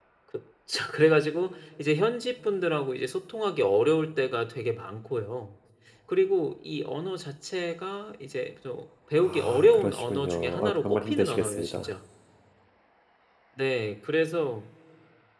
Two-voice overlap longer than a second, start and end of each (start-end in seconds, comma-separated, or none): 9.2-11.9